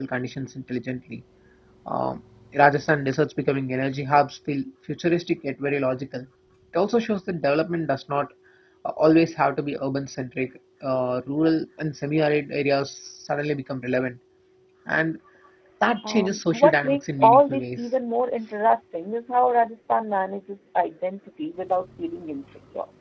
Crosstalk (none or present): present